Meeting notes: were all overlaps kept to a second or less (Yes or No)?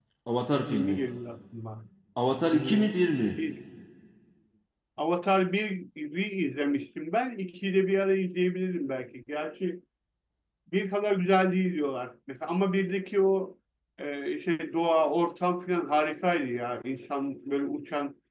Yes